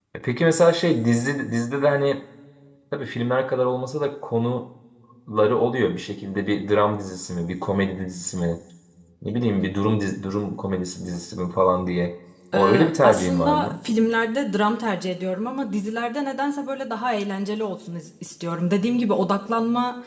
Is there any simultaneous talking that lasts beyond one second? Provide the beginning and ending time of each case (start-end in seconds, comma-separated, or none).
12.5-13.8